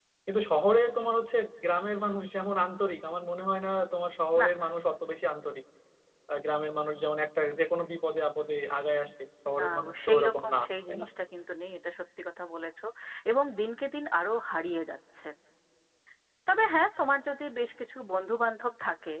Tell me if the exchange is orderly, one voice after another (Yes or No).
No